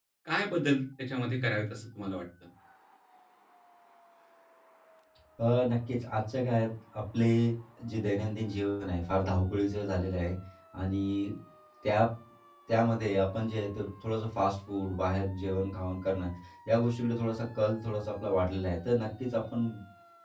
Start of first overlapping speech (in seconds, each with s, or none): none